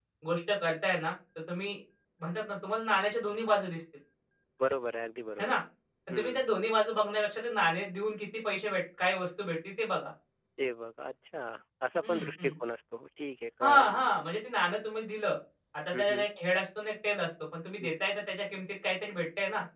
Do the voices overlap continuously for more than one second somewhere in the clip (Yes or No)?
No